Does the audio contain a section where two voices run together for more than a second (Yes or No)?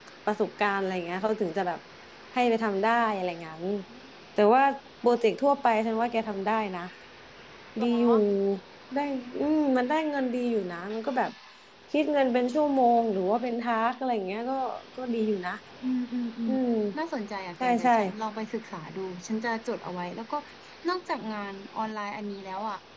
No